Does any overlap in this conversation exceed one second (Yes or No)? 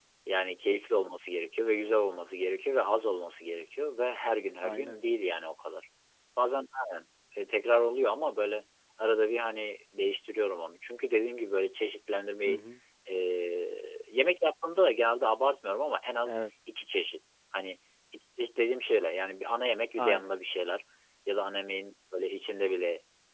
No